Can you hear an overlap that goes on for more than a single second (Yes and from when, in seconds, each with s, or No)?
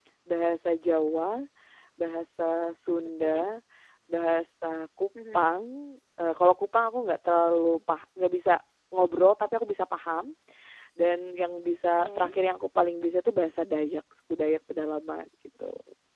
No